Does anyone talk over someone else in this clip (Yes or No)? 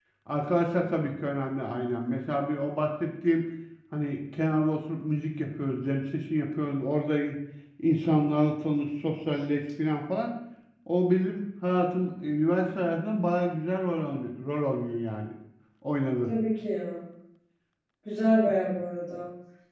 No